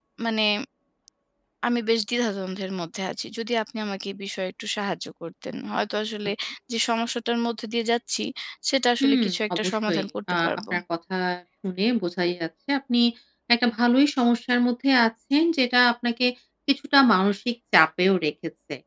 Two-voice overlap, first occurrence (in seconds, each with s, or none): 9.0 s